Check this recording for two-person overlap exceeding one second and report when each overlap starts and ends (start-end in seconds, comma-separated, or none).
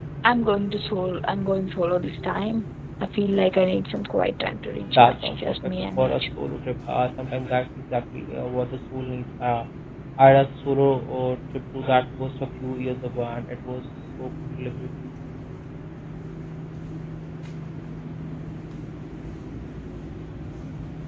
4.9-6.2